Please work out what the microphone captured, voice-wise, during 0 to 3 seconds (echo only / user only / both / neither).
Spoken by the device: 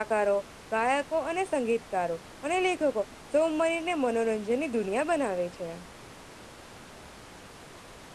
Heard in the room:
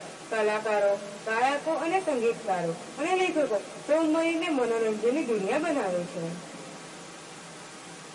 echo only